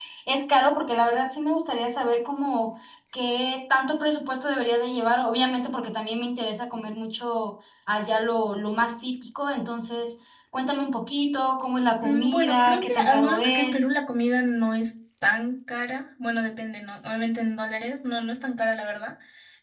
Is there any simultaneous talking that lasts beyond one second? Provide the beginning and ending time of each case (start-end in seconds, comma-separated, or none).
12.0-13.8